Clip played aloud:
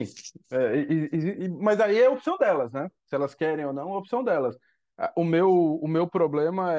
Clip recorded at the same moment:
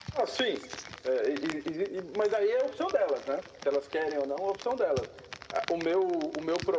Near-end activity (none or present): none